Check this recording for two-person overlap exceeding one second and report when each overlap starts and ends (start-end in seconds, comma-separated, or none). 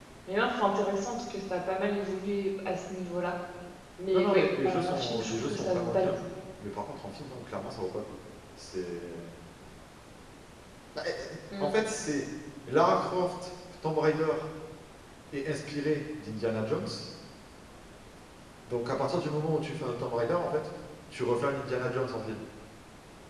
4.1-6.1